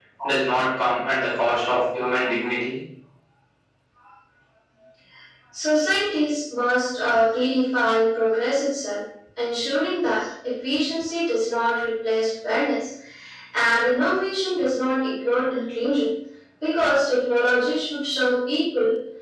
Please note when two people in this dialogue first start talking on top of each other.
none

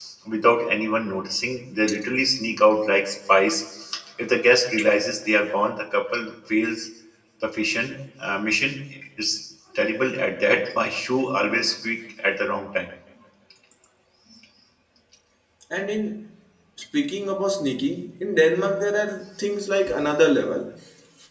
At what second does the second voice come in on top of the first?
none

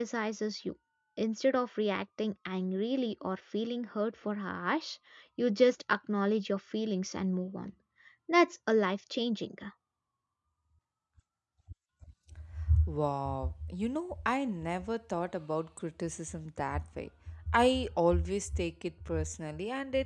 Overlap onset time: none

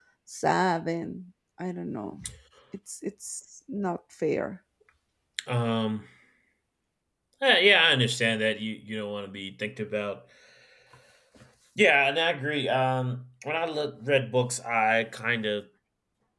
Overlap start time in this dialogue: none

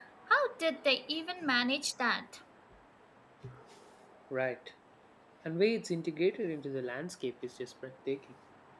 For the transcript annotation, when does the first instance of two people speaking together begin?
none

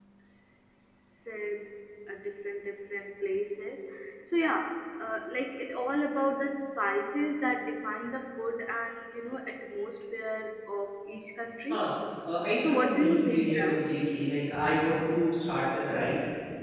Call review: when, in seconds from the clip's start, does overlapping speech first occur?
12.4 s

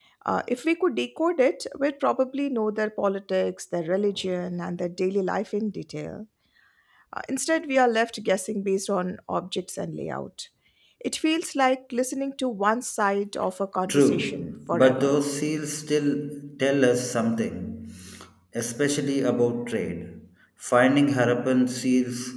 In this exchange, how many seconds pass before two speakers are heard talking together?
13.9 s

